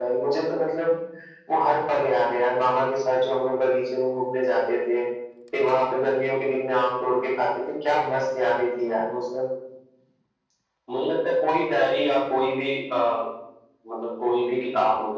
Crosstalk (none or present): none